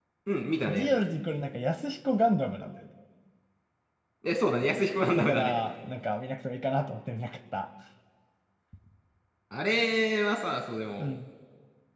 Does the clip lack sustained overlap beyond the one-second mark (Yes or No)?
Yes